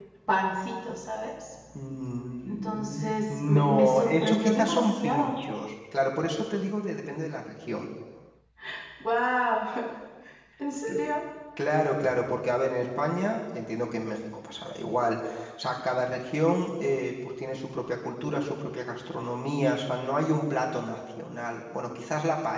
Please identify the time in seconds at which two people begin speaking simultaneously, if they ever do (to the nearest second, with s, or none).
2 s